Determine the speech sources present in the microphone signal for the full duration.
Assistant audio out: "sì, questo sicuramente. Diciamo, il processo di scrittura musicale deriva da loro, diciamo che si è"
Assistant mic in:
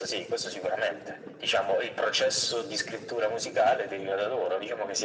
echo only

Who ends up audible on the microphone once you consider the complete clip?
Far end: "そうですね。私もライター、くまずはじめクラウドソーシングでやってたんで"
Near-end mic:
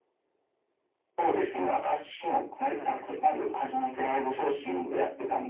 both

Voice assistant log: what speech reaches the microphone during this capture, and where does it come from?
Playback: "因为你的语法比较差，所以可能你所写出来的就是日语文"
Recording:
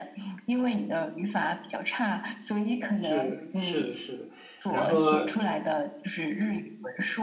both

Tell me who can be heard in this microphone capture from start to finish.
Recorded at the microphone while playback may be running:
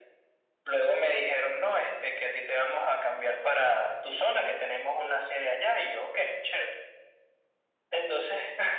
echo only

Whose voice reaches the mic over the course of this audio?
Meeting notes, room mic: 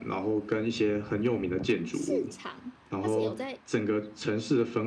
both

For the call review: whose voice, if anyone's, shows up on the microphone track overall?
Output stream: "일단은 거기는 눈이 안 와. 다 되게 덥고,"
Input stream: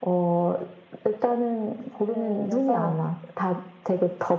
both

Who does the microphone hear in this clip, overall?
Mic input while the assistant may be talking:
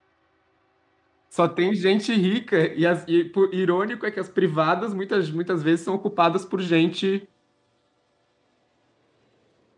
user only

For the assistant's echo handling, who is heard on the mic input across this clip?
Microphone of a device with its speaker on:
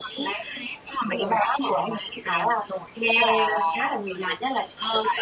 echo only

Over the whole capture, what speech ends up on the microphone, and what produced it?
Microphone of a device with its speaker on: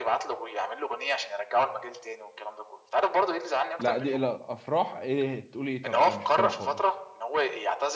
both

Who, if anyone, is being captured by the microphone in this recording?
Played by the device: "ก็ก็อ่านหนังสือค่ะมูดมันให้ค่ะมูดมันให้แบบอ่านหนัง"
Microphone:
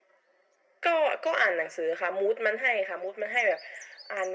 echo only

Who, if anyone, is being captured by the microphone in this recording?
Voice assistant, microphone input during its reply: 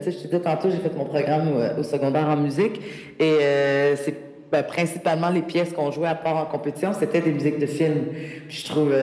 echo only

